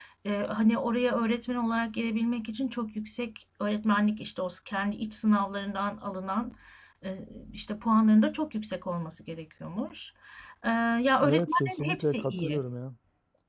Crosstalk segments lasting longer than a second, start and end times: 11.2-12.6

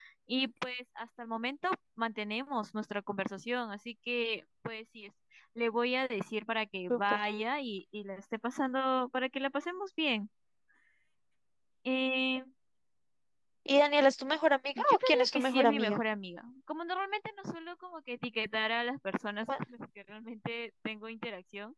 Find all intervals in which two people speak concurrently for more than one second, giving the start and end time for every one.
14.8-16.0

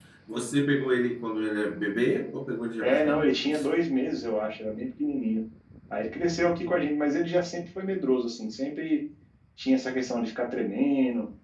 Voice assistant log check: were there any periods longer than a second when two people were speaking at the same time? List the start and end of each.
none

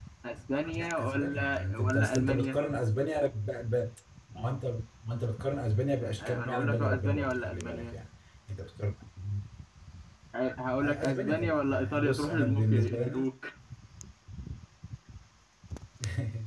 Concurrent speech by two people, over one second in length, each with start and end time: 0.8-2.6, 6.0-7.9, 10.8-13.2

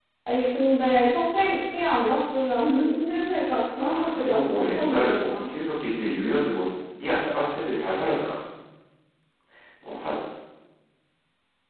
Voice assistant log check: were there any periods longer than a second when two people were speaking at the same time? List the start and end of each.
3.8-5.5

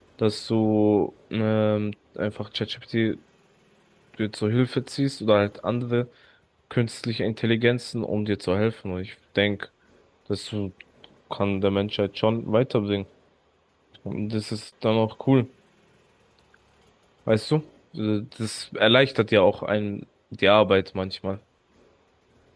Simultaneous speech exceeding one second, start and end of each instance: none

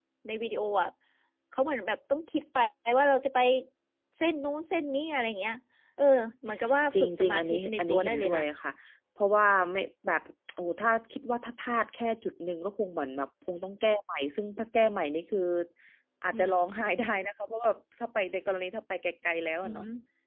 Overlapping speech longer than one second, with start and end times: 6.9-8.4

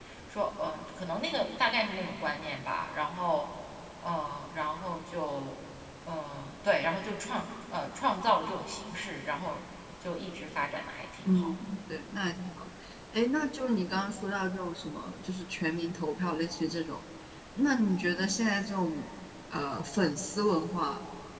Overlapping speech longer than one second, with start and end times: none

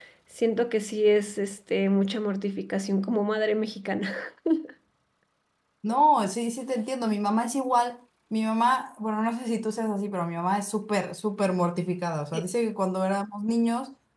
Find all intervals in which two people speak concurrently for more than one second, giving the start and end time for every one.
none

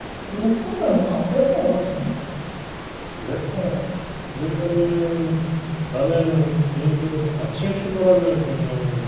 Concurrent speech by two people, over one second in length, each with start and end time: none

